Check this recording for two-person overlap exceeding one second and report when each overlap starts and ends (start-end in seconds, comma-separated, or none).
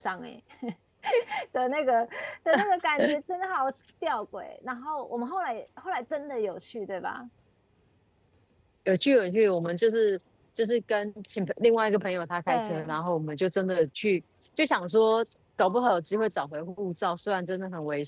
none